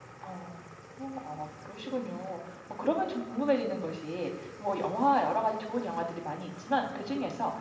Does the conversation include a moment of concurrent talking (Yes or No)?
No